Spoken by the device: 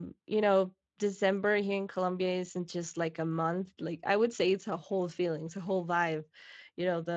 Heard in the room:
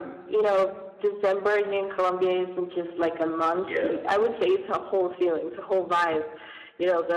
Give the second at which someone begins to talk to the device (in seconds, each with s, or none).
3.6 s